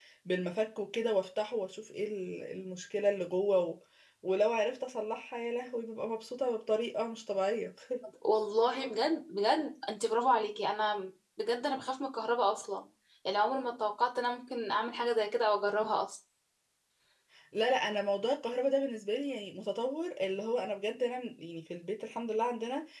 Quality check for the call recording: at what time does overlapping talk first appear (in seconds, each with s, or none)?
none